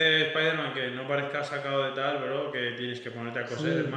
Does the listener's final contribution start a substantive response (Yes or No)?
Yes